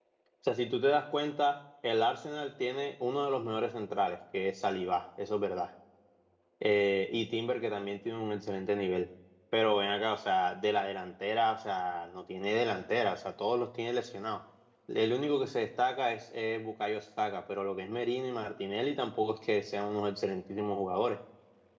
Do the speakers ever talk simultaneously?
No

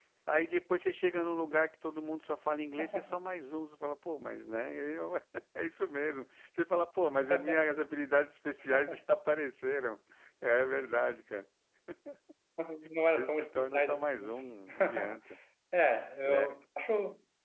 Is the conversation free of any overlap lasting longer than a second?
No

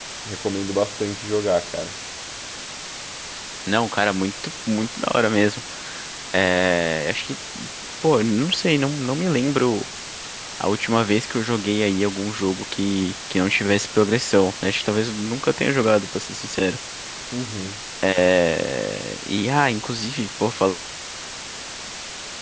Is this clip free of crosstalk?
Yes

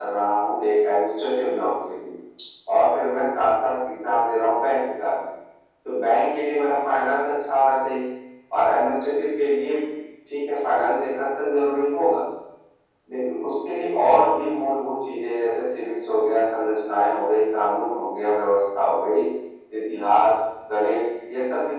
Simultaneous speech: No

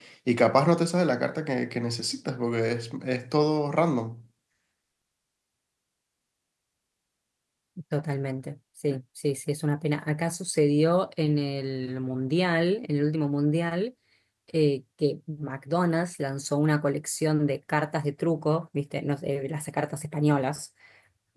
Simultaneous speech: No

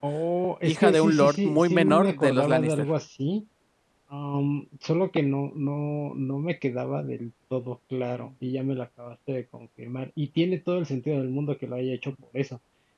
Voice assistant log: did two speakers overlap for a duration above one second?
Yes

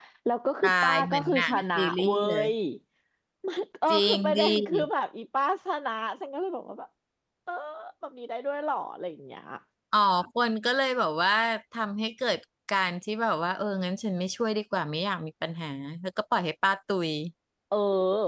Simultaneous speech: Yes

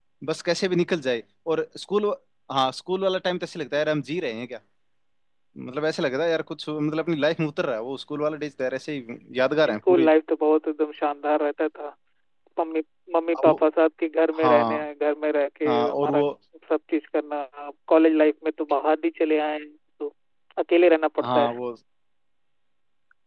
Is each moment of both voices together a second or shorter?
Yes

